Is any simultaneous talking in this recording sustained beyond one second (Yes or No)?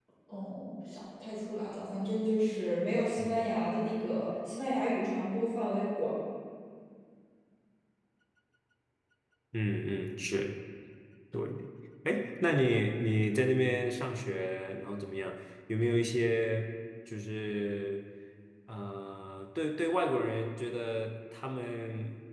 No